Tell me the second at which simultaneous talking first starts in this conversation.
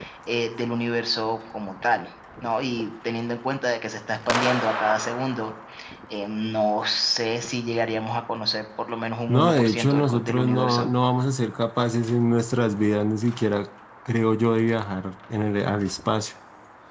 9.3 s

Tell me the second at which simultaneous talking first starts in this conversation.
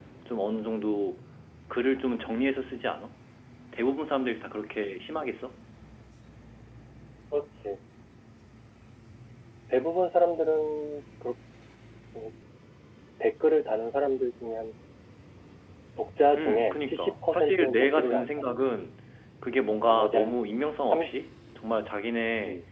16.4 s

